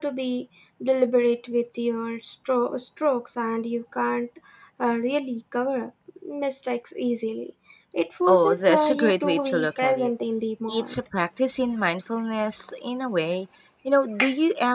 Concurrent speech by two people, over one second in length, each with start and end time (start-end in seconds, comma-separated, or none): 8.3-10.1